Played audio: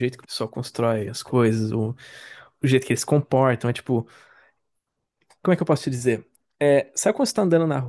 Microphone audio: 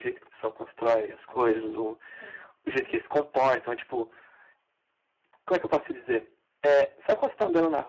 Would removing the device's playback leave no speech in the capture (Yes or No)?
No